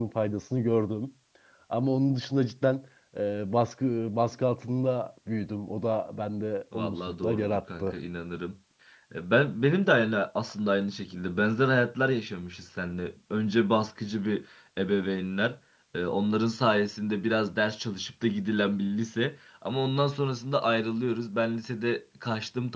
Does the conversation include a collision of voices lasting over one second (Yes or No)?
Yes